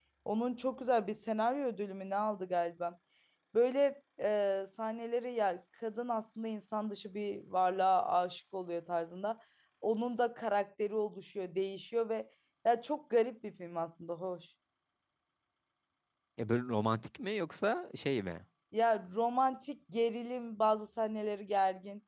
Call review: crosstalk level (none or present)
none